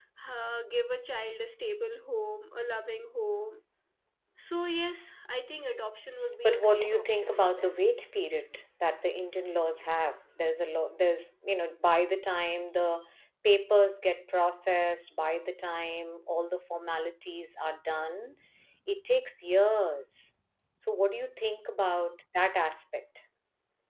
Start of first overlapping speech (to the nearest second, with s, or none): 6 s